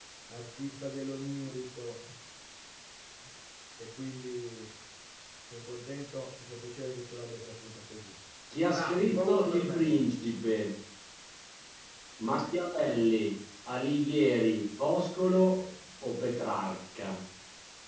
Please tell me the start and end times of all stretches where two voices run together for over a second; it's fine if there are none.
8.7-10.1

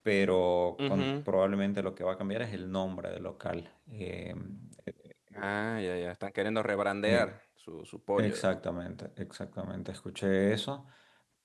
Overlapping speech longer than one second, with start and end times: none

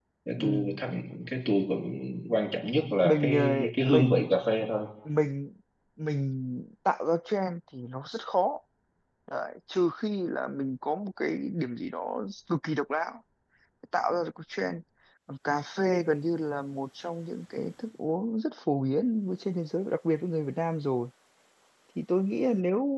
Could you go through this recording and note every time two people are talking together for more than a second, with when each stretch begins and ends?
2.9-4.2

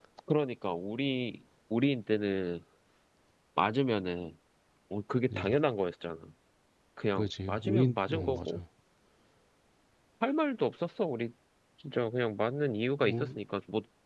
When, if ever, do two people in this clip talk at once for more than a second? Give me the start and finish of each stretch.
7.2-8.6

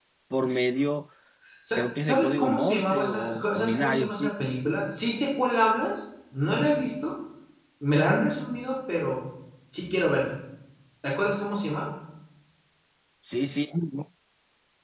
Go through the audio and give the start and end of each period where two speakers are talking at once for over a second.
1.8-4.3

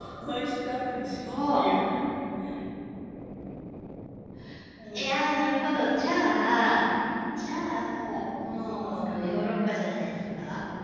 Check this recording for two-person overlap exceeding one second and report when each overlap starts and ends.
8.5-9.8

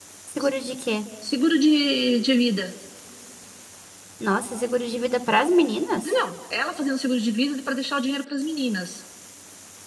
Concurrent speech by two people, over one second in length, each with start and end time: none

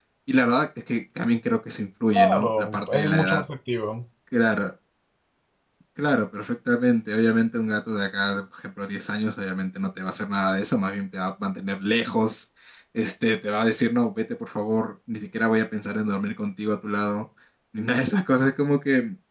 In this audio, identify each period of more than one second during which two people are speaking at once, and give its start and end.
2.1-3.4

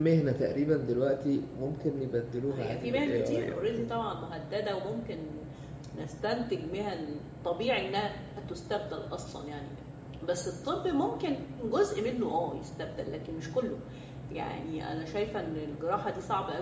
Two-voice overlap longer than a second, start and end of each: 2.5-3.9

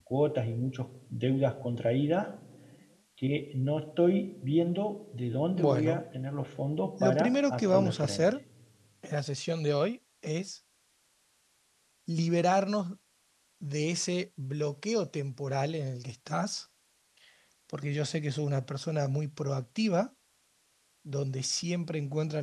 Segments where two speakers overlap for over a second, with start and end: 7.0-8.3

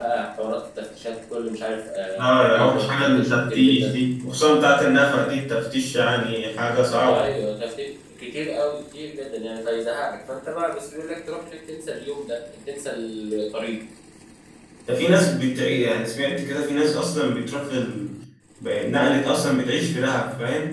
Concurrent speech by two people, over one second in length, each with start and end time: 2.2-3.9

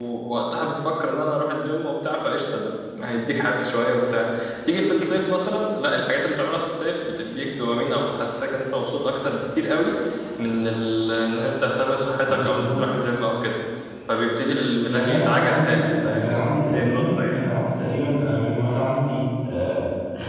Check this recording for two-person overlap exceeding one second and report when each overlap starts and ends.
14.9-17.4

